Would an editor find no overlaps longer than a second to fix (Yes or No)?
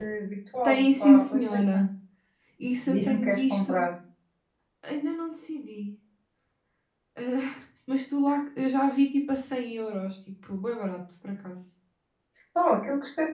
No